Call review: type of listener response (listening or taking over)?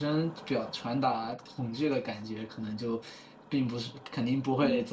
listening